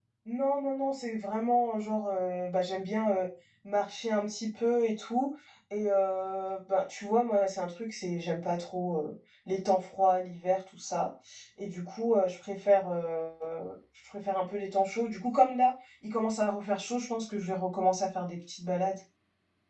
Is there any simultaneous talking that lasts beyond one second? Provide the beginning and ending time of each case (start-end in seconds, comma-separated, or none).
none